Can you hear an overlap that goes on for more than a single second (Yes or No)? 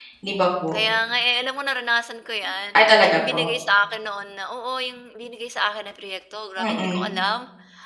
No